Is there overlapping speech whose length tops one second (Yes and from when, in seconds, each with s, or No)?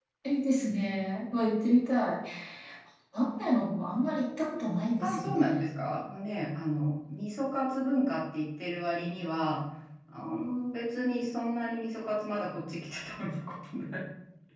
No